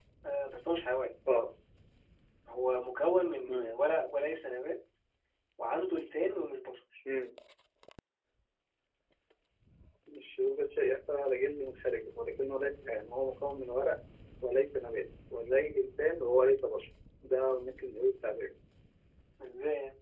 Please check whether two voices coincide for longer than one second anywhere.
No

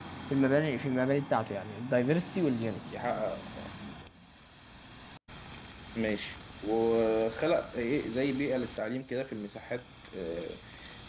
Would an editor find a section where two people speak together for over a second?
No

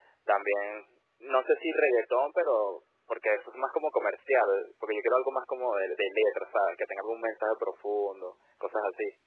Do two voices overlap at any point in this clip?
No

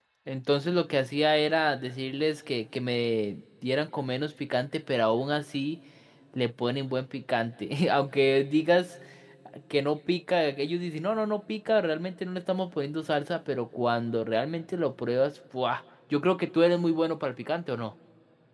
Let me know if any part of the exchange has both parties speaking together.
No

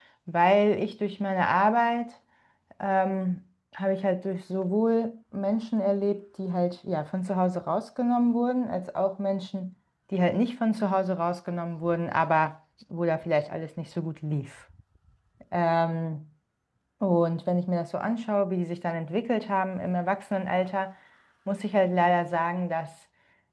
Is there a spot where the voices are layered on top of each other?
No

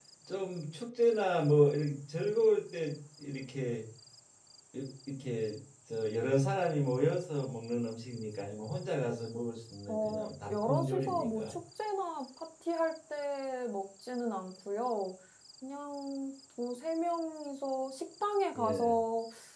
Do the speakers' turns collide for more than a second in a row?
Yes, from 9.9 s

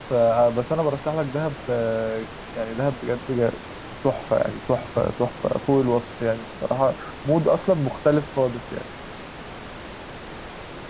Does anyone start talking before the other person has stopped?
No

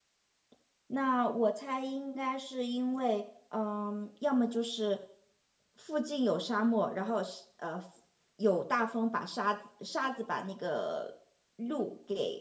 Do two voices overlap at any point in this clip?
No

